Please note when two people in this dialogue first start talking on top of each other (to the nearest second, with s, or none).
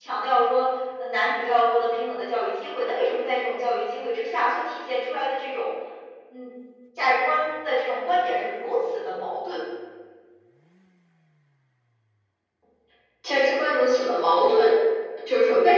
none